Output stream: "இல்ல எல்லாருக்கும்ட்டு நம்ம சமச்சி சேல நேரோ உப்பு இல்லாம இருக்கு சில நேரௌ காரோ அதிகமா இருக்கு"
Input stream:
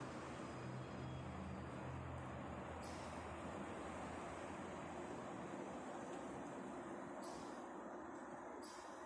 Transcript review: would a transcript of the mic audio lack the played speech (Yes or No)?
Yes